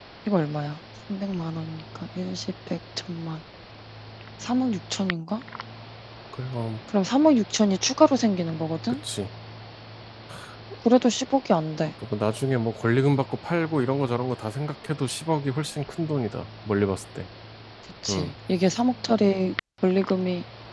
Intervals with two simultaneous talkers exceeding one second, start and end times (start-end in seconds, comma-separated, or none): none